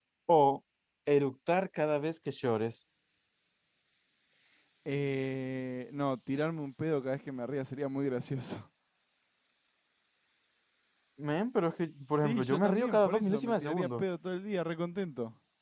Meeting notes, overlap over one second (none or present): present